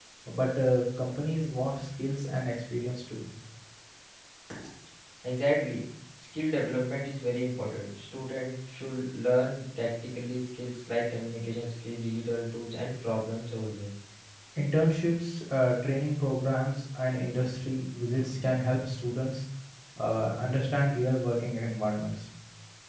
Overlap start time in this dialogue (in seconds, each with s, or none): none